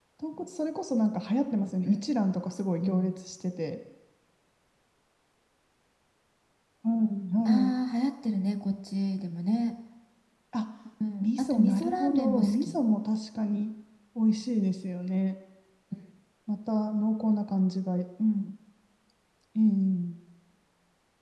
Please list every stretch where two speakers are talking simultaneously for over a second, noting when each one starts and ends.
11.2-12.8

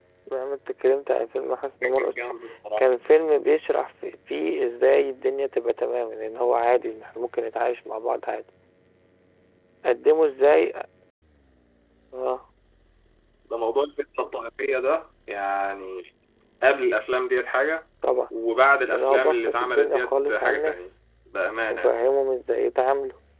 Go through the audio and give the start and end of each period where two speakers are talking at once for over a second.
18.9-20.9

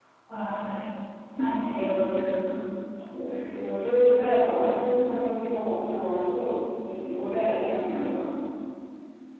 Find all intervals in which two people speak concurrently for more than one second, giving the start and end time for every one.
none

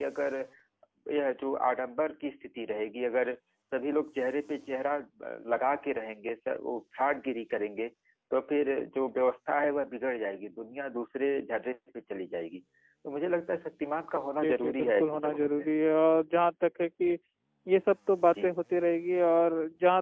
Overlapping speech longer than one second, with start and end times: 14.2-15.6

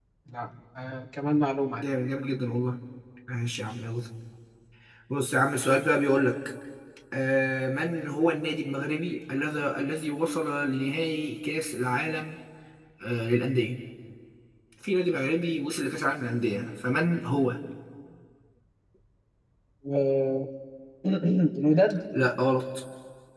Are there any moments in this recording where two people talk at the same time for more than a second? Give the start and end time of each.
none

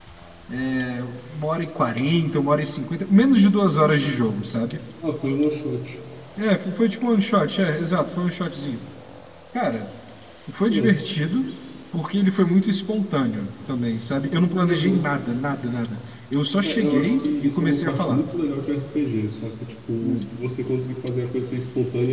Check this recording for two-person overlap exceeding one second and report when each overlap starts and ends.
16.6-18.2

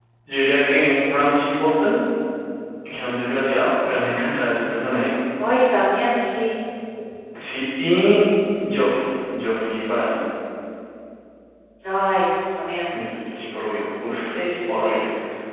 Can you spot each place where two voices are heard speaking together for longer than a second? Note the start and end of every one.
none

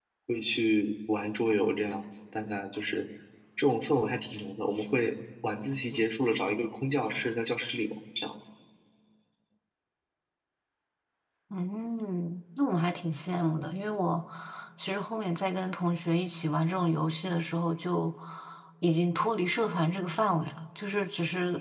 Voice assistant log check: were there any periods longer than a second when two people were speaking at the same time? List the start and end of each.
none

